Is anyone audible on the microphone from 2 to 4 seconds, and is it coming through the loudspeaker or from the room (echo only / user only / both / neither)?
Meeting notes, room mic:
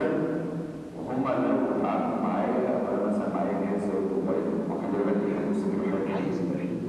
echo only